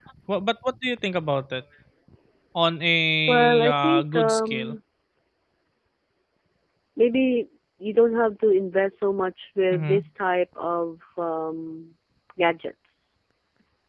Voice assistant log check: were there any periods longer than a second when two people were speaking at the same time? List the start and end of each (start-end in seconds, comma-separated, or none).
3.3-4.8